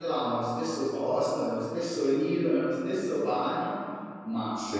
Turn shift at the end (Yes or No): No